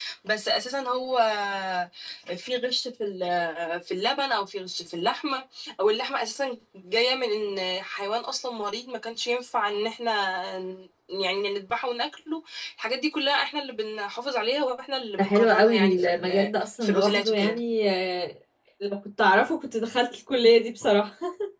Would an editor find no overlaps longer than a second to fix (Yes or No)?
No